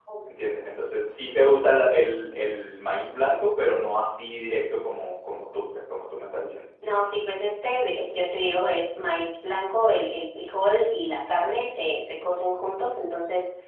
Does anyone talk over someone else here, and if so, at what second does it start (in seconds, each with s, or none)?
none